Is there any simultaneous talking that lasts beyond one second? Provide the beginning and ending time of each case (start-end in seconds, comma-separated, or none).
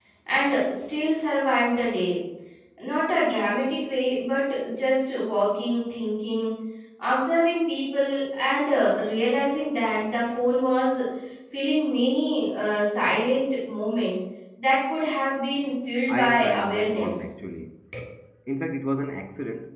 16.1-17.3